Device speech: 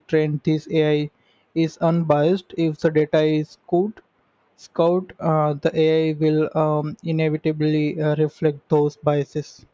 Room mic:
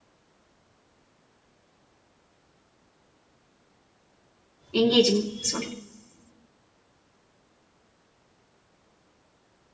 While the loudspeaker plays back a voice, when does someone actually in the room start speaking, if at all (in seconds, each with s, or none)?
4.7 s